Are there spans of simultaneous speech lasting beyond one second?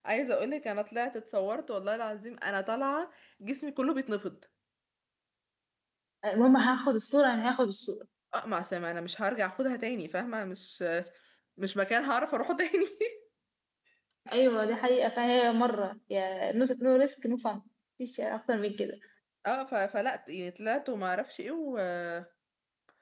No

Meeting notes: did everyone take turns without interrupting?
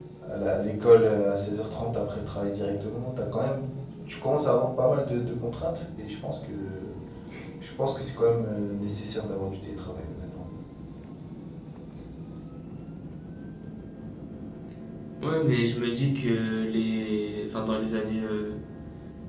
Yes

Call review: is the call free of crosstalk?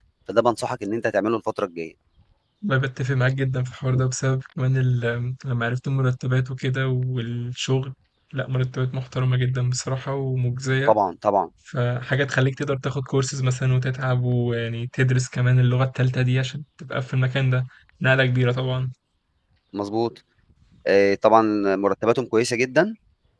Yes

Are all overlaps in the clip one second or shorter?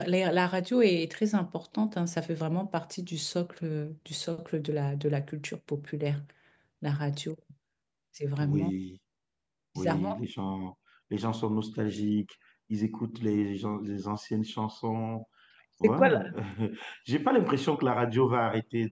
Yes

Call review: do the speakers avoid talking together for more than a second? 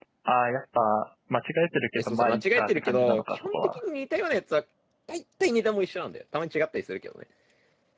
No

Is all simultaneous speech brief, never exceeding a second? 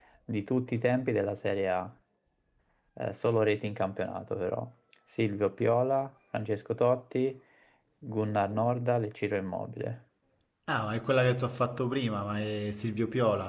Yes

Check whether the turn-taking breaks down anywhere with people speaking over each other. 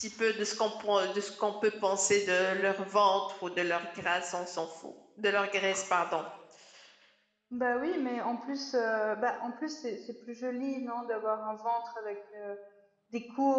No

